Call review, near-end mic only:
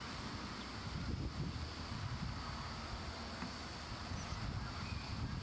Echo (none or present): none